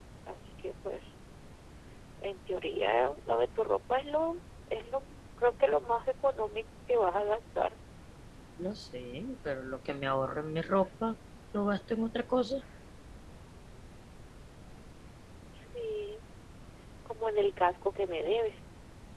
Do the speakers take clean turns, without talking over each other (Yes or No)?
Yes